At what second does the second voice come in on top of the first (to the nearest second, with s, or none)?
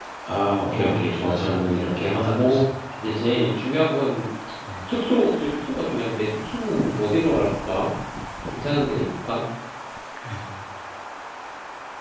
1 s